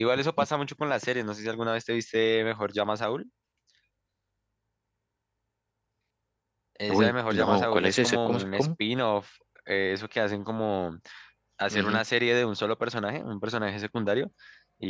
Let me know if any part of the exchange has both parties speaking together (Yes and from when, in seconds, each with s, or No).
Yes, from 6.9 s